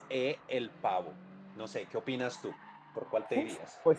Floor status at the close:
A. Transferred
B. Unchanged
A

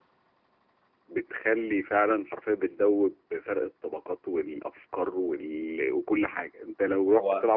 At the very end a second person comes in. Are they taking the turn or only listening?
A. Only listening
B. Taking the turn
A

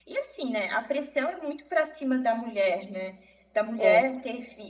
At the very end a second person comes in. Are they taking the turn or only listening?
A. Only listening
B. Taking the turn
A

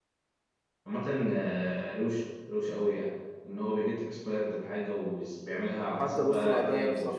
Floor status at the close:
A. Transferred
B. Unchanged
A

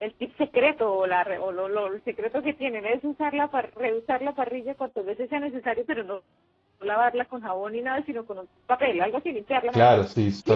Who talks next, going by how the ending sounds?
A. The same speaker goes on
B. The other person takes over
B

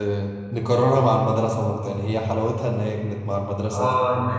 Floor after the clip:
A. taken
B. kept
A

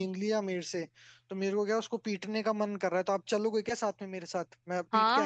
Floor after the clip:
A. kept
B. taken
B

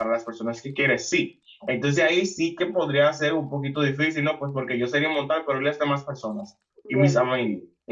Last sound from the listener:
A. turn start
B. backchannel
B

